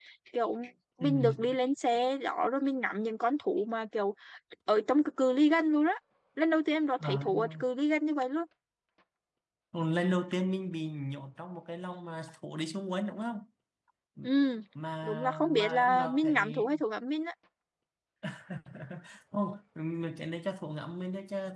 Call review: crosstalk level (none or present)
present